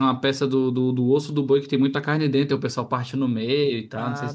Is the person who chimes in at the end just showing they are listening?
No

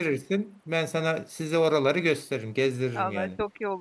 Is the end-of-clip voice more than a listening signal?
Yes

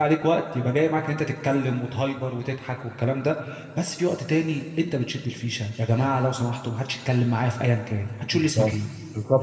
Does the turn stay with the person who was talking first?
No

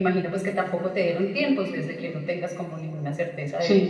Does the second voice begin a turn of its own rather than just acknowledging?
Yes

